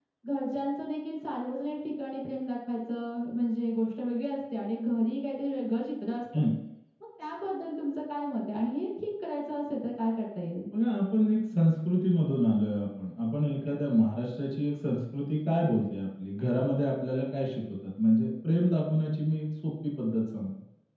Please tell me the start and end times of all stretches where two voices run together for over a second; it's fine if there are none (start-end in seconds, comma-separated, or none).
none